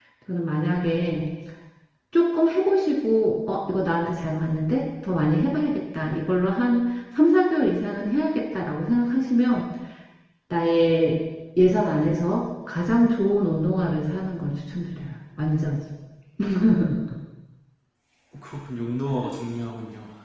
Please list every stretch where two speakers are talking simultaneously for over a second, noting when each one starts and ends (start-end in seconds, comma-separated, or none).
none